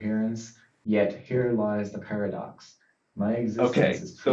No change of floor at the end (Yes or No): No